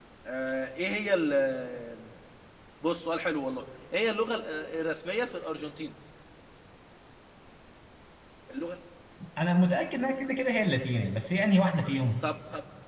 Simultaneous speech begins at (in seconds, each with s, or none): none